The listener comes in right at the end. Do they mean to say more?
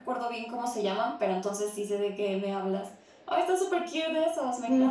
Yes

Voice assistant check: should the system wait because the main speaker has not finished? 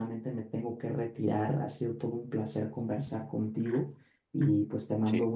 Yes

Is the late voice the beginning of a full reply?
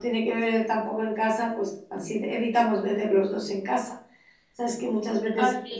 No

